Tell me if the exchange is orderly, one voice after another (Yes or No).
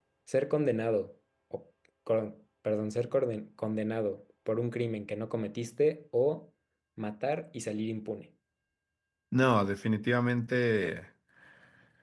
Yes